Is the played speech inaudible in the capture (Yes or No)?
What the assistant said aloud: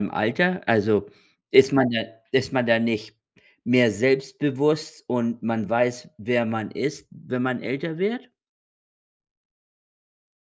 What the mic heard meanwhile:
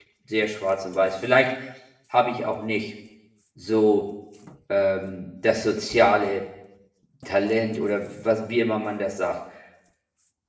Yes